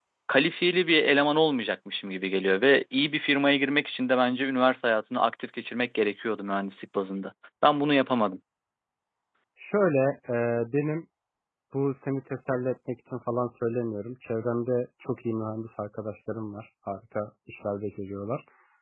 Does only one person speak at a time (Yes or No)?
Yes